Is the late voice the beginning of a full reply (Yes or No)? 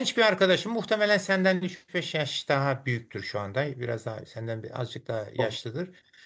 No